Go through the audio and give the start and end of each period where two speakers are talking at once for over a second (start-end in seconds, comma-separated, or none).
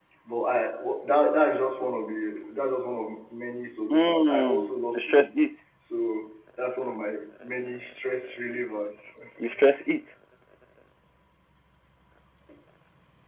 3.9-5.4